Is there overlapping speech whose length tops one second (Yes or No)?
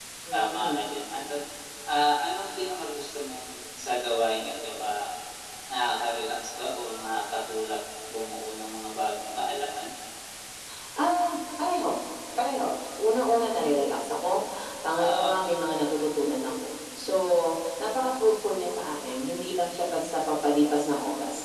No